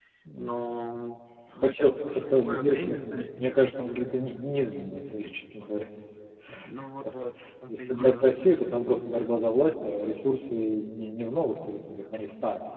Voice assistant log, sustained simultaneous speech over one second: present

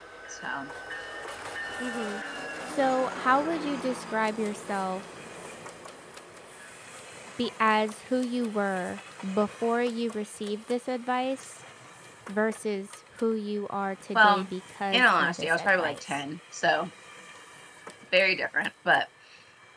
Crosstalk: present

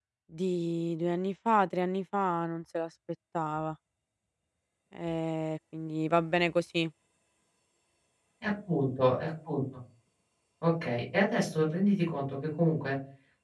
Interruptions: none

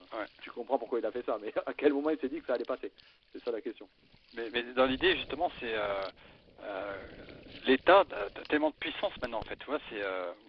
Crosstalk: none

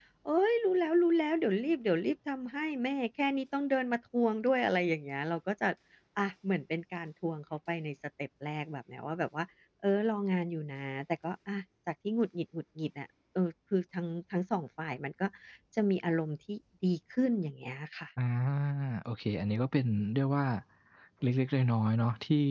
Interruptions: none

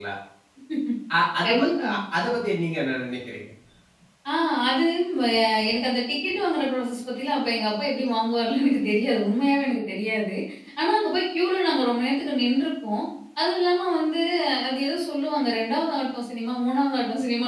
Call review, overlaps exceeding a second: none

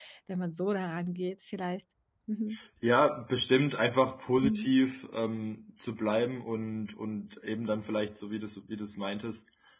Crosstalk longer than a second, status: none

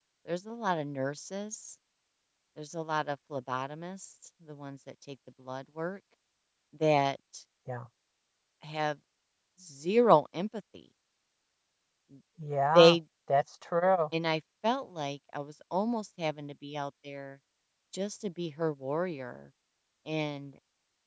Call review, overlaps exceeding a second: none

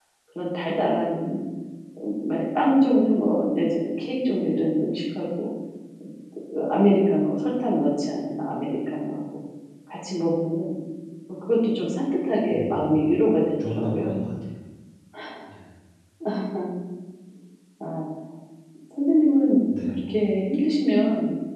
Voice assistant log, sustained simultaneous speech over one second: none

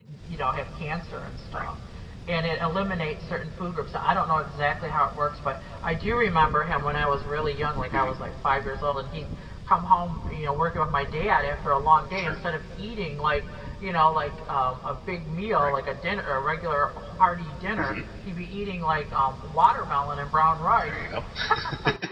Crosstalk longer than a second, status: none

